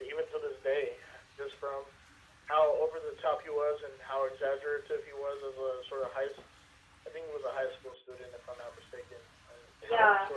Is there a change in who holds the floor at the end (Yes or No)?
No